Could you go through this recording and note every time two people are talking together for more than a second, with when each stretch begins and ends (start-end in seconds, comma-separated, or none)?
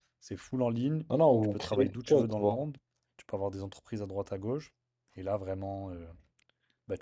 1.4-2.6